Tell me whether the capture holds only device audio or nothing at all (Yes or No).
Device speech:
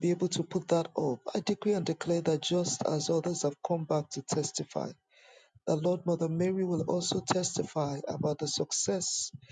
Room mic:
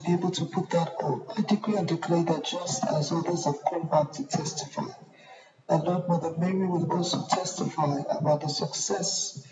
Yes